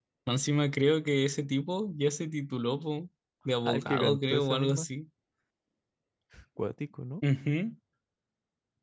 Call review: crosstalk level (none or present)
present